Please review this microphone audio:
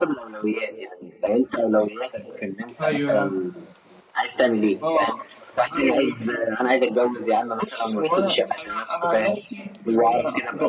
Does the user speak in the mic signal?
Yes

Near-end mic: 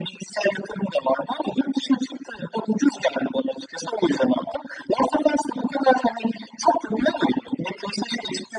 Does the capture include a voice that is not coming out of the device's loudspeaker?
No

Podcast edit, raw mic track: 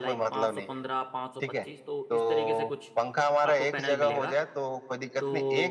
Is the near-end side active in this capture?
Yes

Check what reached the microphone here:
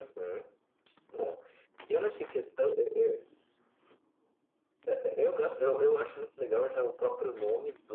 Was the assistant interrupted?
No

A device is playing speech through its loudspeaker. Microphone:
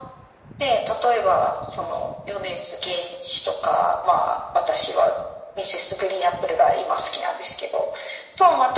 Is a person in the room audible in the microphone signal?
No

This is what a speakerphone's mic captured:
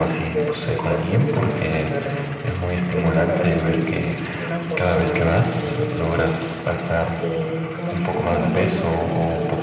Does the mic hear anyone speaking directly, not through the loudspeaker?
No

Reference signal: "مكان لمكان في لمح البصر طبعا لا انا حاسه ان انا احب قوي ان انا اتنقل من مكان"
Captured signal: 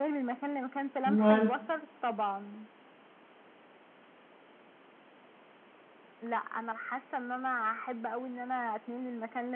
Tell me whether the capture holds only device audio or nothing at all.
No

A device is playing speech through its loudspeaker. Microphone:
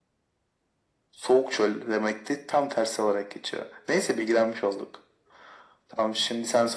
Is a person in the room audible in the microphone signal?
No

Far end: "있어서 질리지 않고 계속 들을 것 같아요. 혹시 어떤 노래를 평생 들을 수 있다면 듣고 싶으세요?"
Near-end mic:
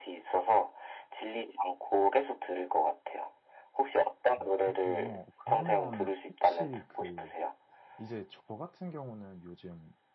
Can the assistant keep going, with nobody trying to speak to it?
No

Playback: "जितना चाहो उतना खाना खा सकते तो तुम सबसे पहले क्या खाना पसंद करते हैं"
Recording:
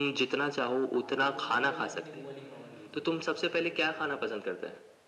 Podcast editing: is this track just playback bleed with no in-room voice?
No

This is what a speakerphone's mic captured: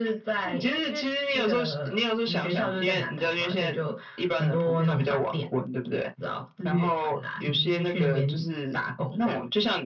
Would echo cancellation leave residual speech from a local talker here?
No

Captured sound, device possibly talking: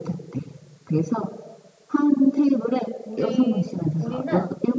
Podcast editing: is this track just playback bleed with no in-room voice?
No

